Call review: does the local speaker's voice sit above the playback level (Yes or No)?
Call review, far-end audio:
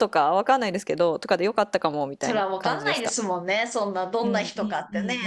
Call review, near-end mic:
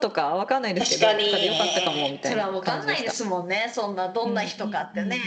Yes